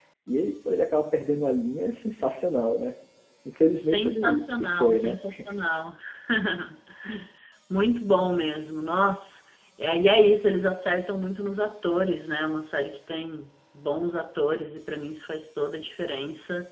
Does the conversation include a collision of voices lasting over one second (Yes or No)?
Yes